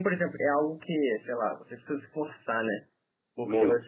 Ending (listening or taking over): listening